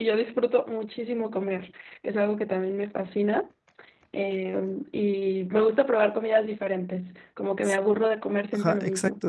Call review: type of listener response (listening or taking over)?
taking over